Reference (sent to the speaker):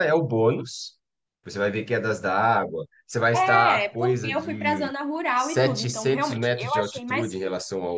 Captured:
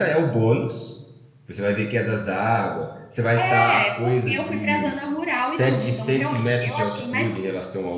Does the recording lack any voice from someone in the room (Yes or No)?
Yes